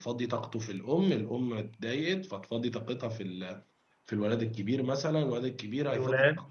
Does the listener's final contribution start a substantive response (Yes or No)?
No